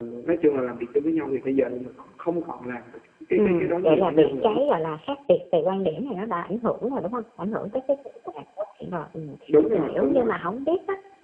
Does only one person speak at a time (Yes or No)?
No